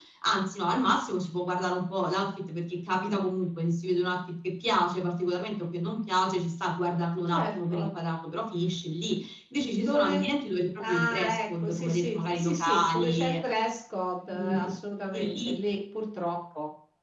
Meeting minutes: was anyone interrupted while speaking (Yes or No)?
Yes